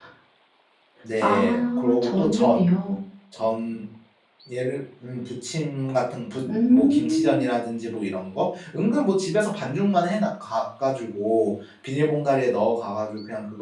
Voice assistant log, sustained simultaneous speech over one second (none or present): present